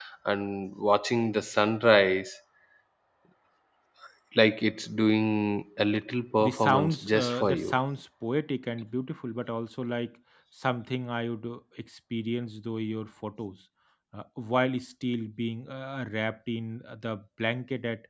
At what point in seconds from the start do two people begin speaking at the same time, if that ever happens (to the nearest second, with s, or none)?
6 s